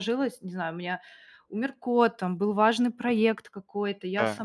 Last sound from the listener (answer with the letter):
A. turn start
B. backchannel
B